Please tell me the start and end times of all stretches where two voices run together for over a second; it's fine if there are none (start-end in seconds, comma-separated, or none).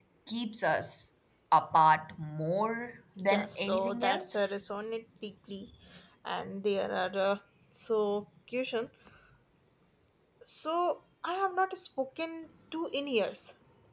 3.2-4.5